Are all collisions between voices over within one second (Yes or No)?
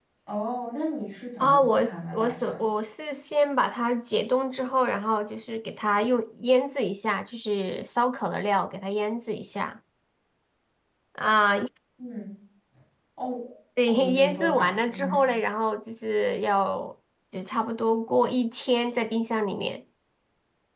No